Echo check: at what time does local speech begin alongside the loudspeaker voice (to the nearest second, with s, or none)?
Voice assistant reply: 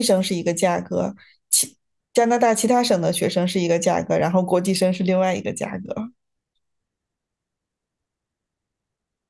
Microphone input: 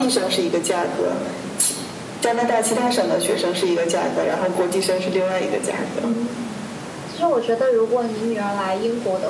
6 s